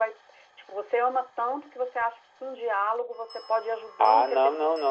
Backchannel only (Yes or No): No